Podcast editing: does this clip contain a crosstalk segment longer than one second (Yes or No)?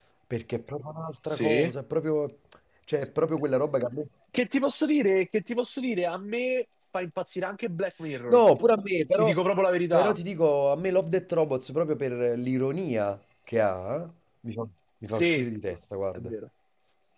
No